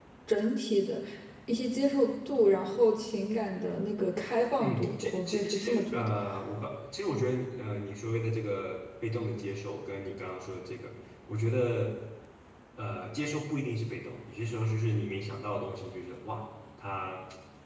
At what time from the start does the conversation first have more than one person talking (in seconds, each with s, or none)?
4.6 s